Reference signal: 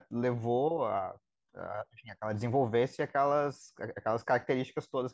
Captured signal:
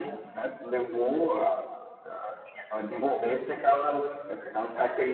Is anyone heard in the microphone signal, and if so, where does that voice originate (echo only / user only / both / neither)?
echo only